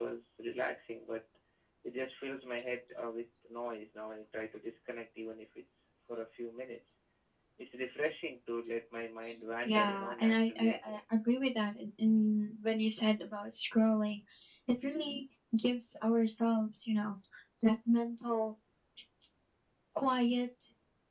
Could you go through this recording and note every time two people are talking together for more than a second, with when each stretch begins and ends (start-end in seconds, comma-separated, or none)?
9.6-11.0